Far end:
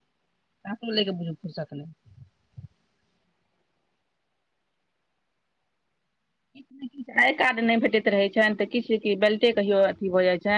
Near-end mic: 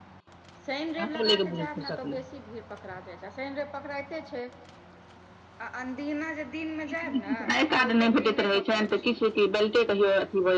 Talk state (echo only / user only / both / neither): both